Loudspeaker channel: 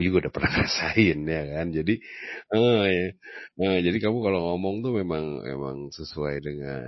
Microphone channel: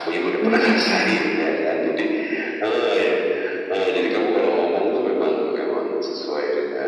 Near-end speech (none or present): present